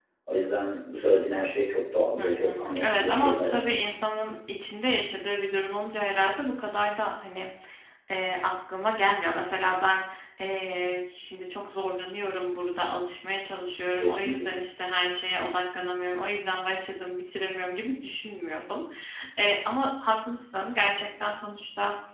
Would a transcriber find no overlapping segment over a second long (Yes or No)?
No